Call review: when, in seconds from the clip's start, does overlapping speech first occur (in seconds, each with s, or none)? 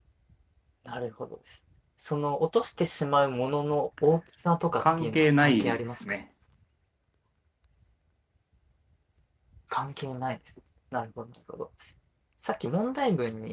4.8 s